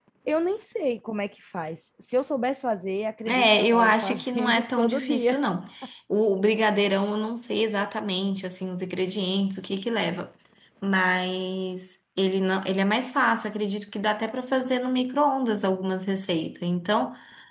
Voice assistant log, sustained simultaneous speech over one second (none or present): present